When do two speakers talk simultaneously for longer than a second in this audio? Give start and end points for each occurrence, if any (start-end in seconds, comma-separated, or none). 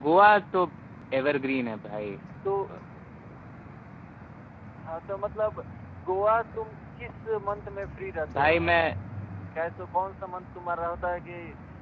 none